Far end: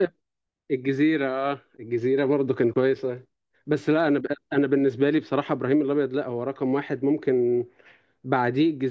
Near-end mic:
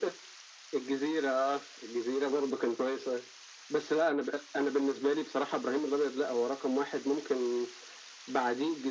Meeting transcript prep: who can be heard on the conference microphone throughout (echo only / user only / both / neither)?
echo only